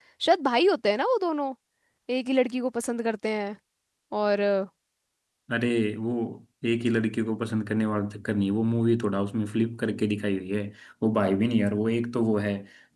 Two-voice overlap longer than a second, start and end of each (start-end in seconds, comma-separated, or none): none